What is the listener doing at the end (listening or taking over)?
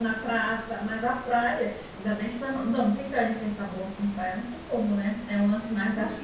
listening